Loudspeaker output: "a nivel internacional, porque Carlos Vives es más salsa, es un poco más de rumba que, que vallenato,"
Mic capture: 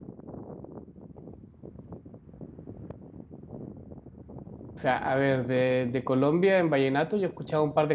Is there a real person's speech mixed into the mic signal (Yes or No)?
Yes